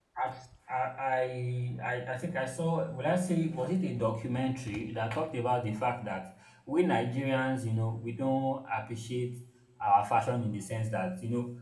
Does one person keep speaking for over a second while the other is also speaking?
No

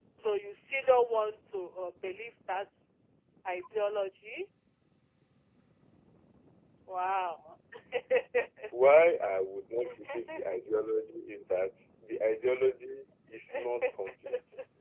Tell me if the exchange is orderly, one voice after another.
Yes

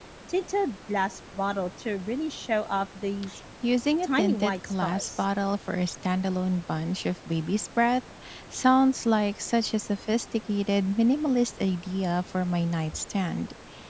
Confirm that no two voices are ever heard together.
No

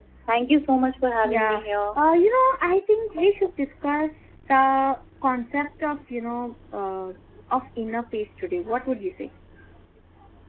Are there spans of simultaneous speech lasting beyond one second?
No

